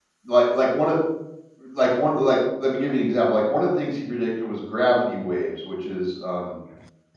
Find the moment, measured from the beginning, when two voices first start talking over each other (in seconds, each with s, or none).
none